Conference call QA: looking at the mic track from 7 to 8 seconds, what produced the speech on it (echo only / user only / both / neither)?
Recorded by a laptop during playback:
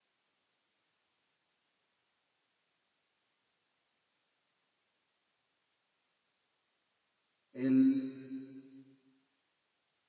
user only